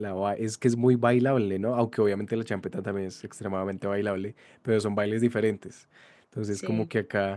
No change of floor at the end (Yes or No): Yes